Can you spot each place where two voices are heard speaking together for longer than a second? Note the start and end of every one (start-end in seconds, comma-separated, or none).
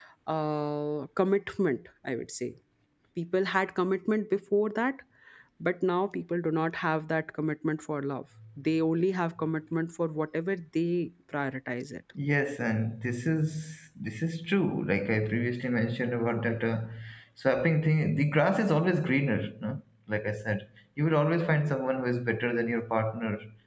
none